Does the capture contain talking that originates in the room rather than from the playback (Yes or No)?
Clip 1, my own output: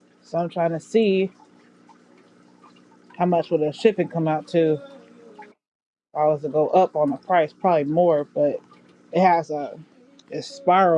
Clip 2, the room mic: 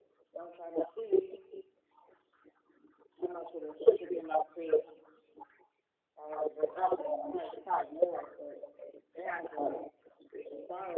No